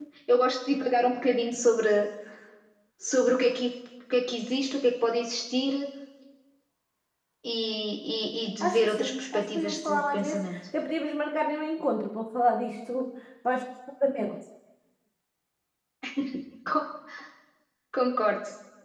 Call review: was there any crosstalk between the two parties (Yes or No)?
Yes